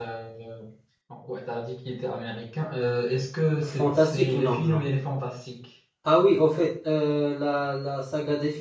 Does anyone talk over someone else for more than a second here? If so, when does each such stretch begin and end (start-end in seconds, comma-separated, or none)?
3.6-4.8